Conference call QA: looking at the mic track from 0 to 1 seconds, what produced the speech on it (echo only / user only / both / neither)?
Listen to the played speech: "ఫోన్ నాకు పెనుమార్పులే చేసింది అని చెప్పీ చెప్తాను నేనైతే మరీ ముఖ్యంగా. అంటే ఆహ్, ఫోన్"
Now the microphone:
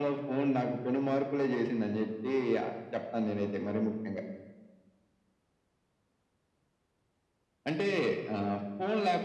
echo only